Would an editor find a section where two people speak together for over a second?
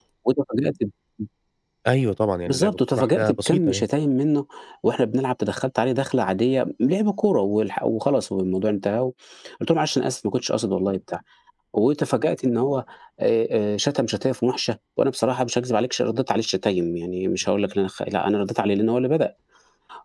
Yes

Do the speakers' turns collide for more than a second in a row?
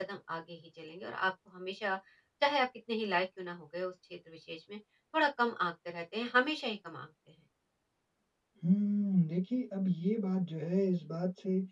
No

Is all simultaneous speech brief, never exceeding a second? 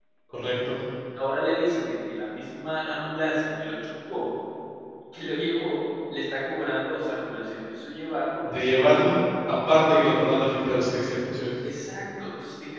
Yes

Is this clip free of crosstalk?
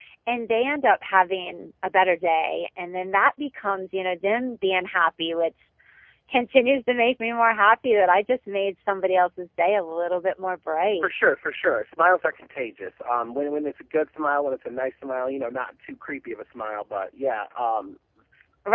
Yes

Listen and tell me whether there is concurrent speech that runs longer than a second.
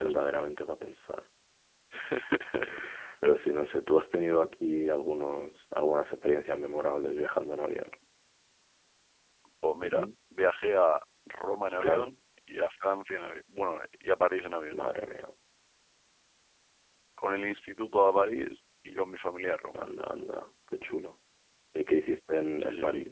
No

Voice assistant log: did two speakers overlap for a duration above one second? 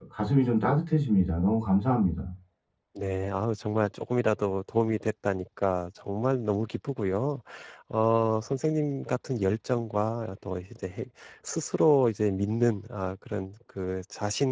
No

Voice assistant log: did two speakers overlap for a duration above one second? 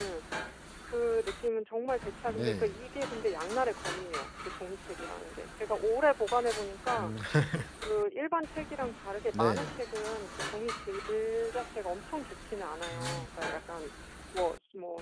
No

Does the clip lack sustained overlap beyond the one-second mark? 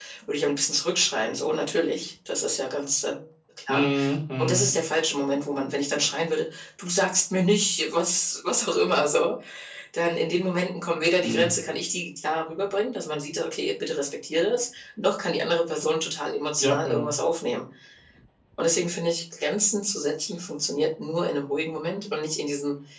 Yes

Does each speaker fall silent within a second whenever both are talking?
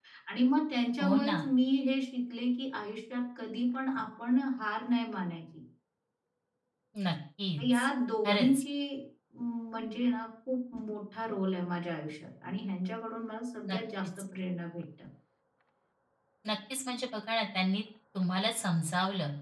Yes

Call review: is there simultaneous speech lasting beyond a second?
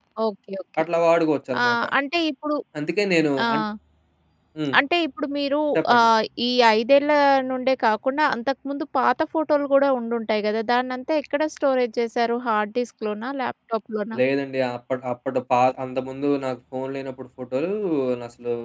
No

